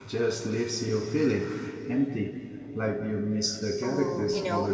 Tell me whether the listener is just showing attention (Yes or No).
No